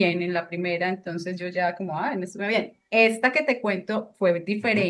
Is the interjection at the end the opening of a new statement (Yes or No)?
No